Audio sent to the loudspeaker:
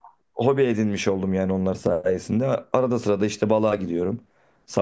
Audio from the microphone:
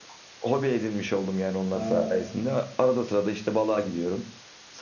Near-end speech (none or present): present